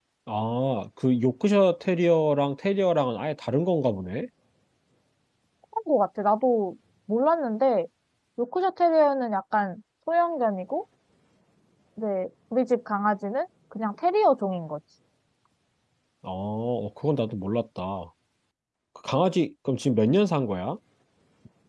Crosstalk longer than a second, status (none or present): none